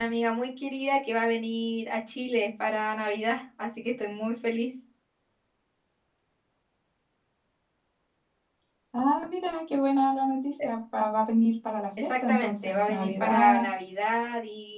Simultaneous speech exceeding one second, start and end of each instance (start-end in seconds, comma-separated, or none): 12.0-13.6